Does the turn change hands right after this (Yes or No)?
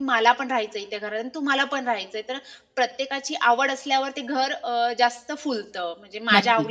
No